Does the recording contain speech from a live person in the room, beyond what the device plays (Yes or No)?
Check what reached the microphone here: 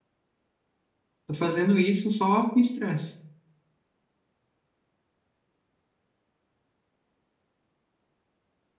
Yes